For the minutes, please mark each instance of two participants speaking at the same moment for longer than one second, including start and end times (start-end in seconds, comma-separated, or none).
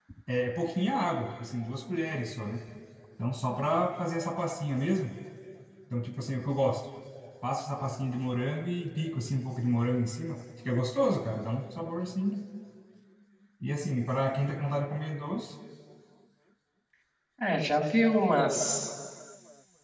none